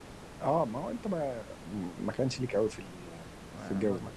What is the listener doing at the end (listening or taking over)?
taking over